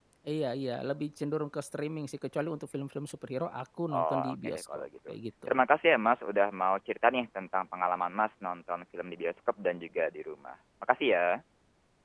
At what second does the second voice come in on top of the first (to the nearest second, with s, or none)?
4 s